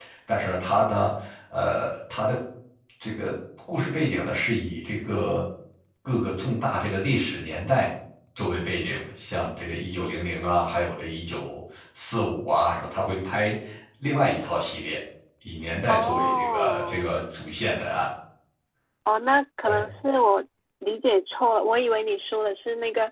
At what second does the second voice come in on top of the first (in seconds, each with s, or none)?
15.9 s